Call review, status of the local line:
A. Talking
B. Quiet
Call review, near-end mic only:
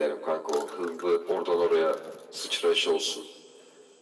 B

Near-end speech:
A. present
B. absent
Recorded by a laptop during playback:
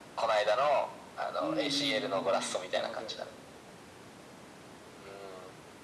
A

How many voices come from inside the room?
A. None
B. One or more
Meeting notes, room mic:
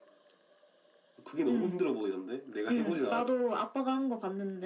A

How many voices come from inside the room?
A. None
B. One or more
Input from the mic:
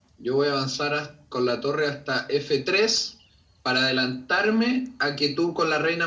A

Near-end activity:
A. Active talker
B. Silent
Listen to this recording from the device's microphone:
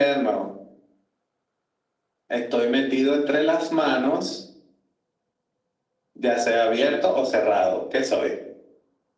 B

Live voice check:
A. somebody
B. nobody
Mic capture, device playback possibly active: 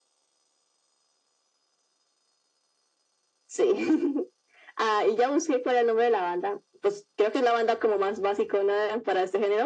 B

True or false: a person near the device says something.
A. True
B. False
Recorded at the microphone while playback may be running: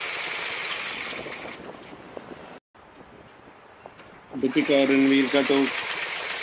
A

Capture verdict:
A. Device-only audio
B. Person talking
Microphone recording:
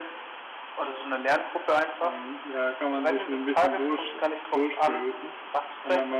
B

